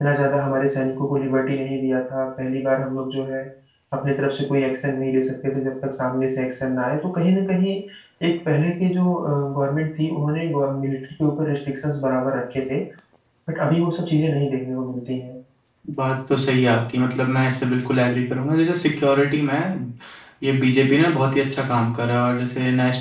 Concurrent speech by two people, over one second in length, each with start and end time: none

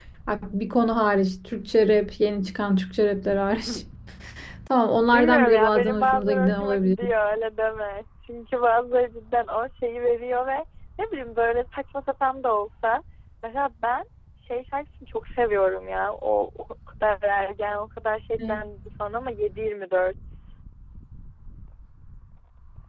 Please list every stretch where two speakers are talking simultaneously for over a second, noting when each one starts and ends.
5.0-6.9

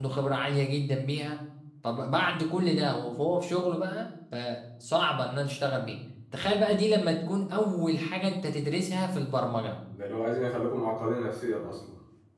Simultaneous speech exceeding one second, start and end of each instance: none

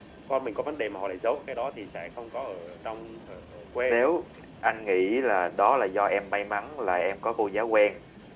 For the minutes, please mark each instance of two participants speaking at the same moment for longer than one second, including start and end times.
none

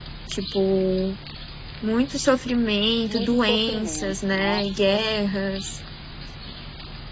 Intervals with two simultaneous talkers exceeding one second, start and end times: 3.1-5.1

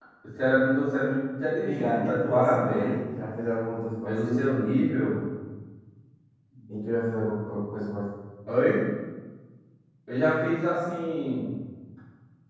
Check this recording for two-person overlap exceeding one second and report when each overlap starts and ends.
1.6-3.0

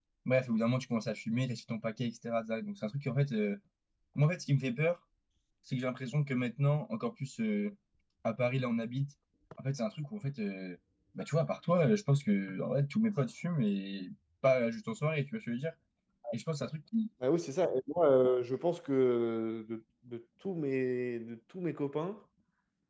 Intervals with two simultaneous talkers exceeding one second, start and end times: none

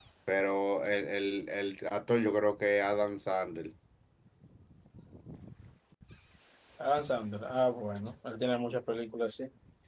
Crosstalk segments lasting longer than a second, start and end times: none

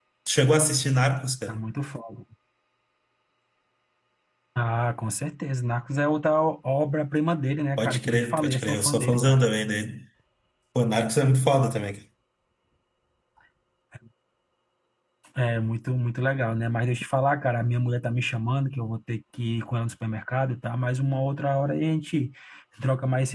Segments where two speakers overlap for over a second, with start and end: 7.8-9.4

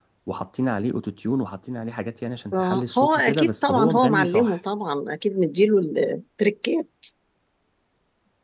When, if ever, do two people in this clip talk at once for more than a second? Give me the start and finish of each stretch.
2.5-4.6

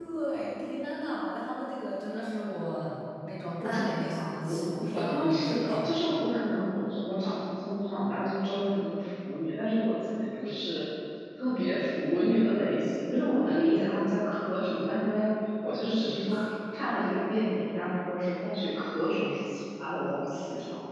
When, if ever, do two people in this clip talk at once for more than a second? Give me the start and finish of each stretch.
3.6-5.9

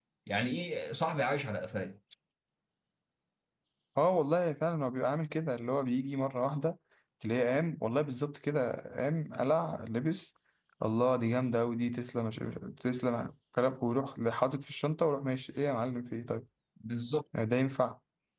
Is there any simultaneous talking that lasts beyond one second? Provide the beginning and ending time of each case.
none

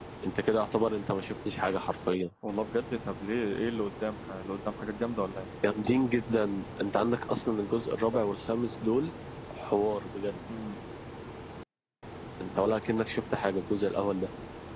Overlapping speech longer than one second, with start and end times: none

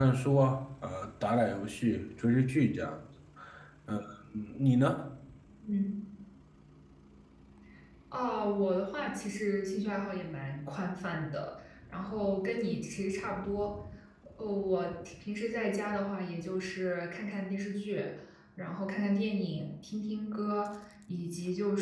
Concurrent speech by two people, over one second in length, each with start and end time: none

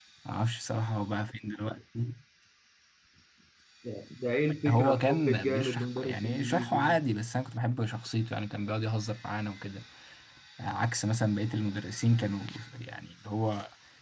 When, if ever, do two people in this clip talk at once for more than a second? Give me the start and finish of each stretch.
4.7-7.0

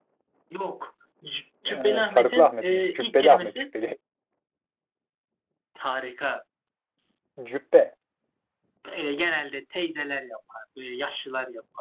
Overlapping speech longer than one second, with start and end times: 1.7-3.6

